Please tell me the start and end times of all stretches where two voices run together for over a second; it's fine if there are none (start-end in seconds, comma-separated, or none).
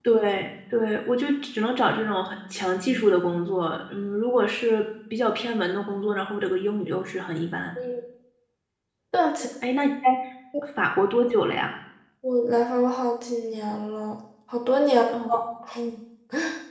none